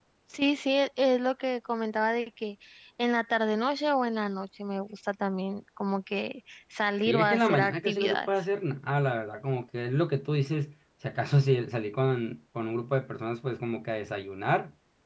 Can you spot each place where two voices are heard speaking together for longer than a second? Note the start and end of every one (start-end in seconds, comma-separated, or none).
7.1-8.3